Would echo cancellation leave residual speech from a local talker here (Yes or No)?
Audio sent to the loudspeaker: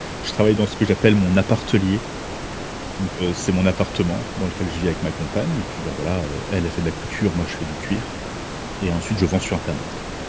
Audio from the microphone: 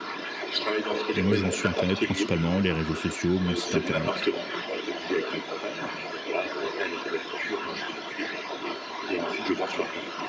Yes